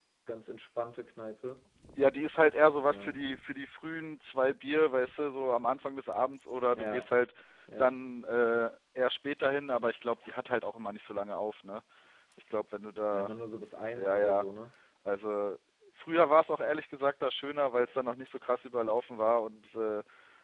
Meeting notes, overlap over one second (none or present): none